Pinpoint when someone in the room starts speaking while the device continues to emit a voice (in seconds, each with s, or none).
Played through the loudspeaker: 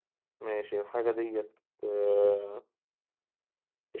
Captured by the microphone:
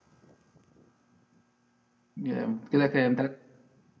2.2 s